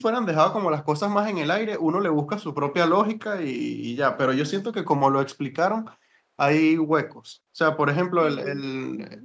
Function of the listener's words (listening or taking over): listening